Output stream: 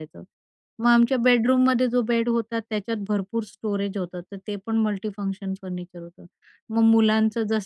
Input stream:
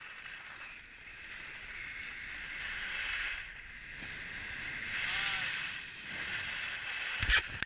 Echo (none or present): none